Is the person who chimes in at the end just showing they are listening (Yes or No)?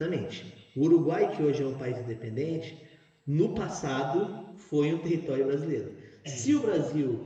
Yes